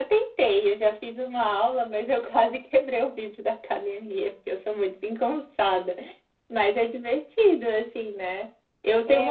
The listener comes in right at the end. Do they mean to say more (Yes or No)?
No